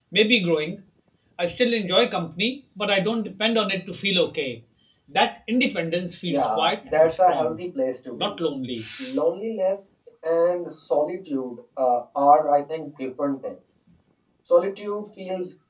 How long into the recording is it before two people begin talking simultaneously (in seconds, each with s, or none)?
6.3 s